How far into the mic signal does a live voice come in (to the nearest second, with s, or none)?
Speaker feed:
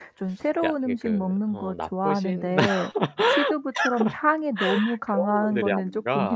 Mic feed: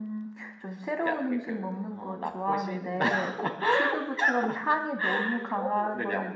none